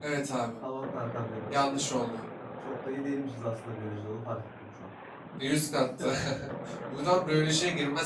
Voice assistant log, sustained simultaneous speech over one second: none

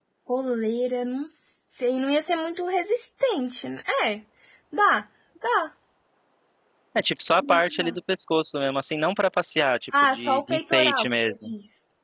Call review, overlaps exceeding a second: present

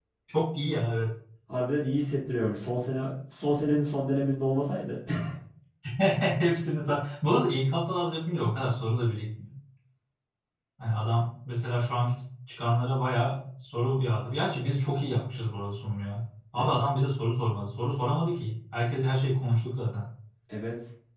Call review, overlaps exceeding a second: none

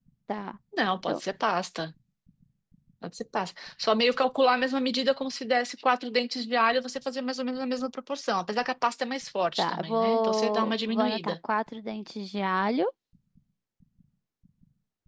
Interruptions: present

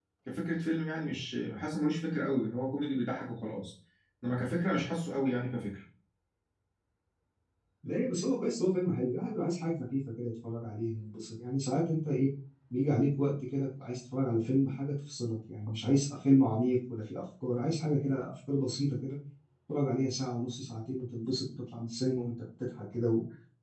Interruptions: none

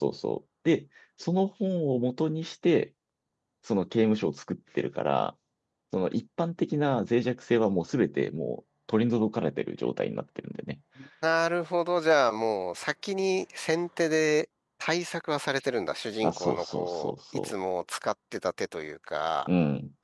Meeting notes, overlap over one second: present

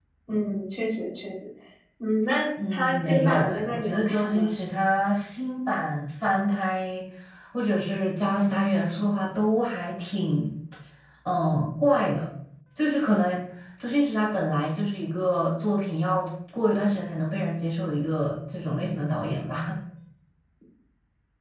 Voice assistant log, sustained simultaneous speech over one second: present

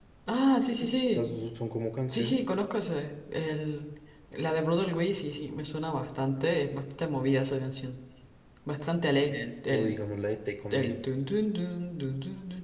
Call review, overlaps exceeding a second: none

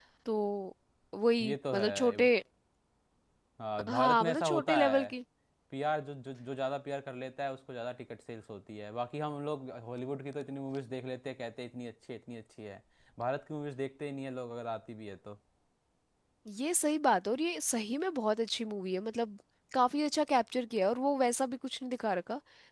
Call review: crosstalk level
present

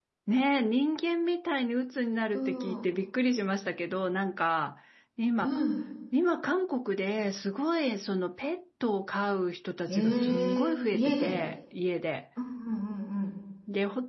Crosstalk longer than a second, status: present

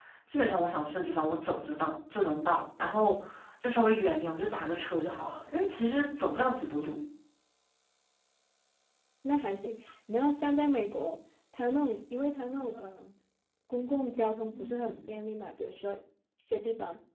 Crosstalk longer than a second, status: none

